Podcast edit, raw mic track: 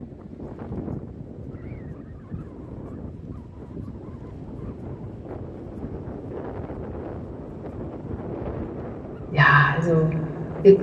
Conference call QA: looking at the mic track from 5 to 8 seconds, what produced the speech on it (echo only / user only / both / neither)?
neither